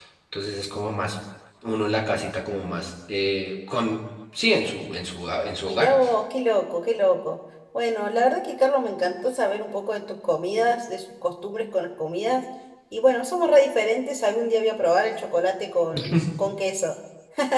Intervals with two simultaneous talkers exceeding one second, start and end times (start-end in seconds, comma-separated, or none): none